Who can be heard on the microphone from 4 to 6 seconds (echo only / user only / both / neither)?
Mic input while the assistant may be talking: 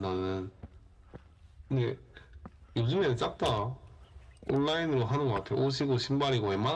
echo only